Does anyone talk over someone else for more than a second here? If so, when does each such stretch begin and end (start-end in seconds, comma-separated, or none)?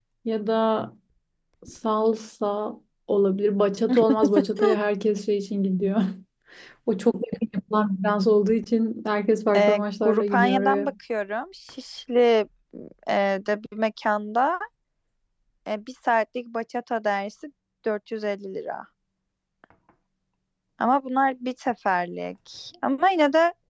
9.6-10.9